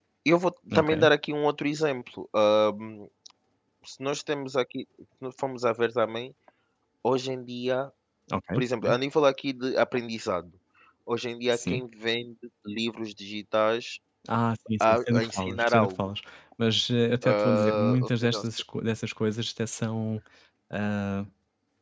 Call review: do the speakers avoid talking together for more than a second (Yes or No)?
No